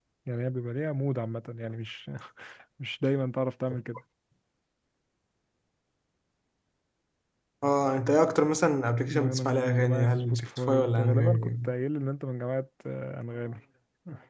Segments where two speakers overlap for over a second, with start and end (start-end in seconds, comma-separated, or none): 9.1-11.5